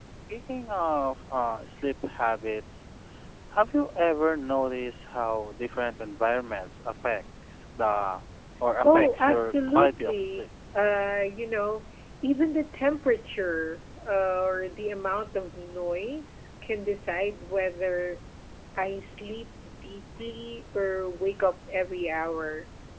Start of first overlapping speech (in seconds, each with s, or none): 8.8 s